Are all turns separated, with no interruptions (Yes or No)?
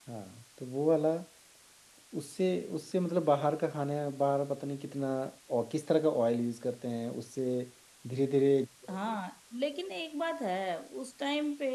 Yes